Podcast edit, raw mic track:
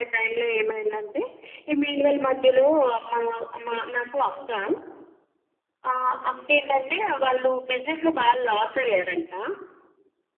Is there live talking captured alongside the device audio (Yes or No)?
No